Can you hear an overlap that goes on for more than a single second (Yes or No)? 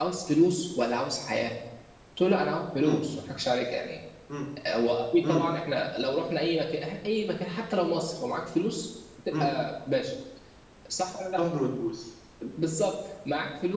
No